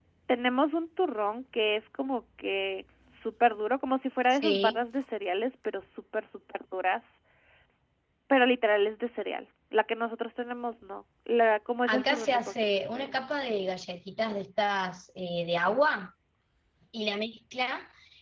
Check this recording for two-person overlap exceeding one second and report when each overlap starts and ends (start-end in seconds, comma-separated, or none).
11.9-13.1